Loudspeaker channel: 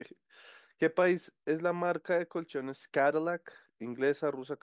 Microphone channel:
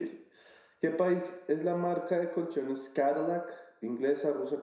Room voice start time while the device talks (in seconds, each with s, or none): none